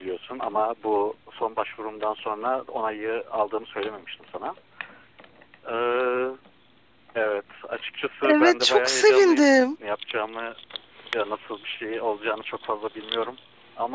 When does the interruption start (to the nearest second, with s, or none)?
8 s